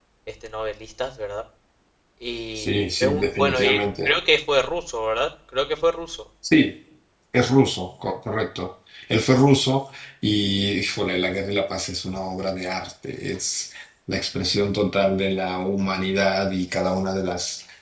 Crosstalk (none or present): present